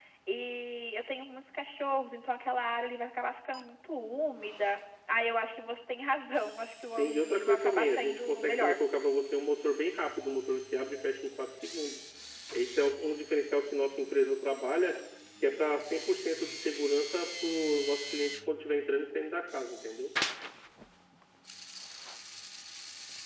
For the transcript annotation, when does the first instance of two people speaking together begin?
7 s

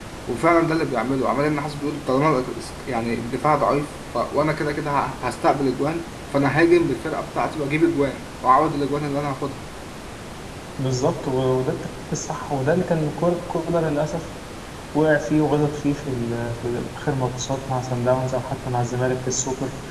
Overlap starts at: none

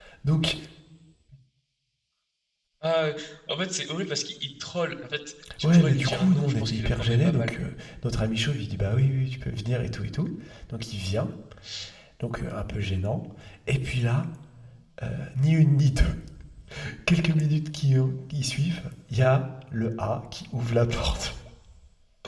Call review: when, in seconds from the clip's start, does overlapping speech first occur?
5 s

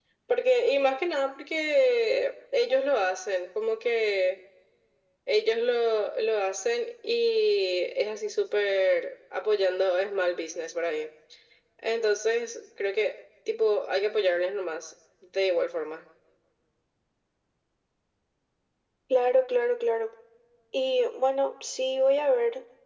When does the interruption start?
none

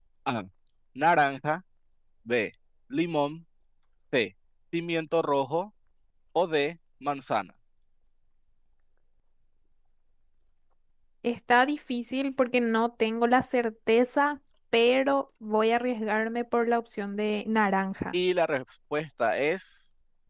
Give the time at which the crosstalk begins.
none

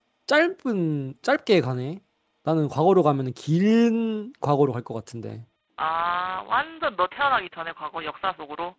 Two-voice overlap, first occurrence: none

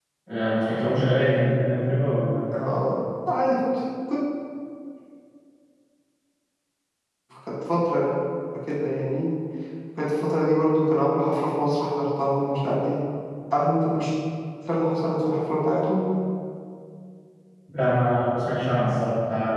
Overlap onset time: none

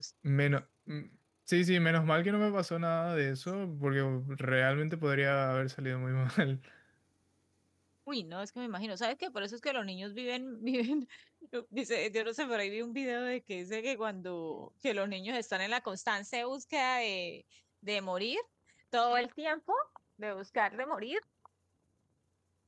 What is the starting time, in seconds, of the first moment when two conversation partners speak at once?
none

